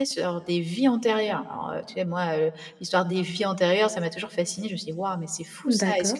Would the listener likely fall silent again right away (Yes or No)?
Yes